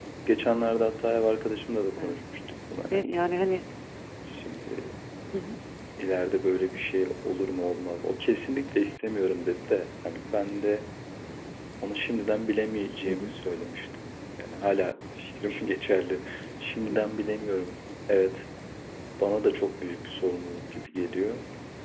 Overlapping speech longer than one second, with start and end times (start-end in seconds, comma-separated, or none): none